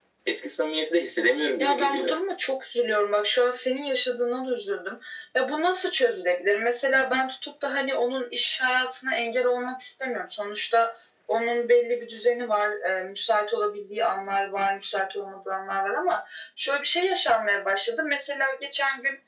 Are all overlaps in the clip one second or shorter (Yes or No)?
Yes